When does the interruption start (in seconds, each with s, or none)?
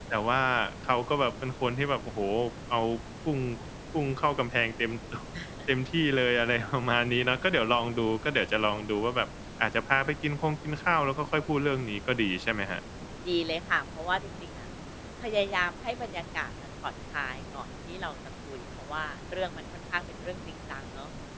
none